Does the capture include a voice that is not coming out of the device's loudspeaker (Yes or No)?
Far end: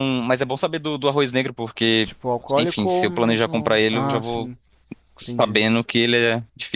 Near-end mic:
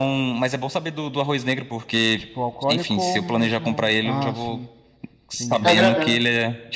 Yes